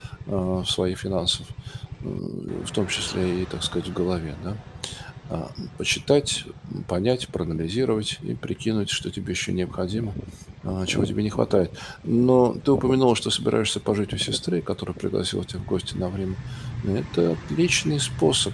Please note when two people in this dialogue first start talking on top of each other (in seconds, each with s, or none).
none